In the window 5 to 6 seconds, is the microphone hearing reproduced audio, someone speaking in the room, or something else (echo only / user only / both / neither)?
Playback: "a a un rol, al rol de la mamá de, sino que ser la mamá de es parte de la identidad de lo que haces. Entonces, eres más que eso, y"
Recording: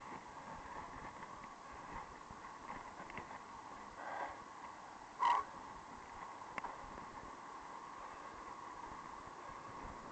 neither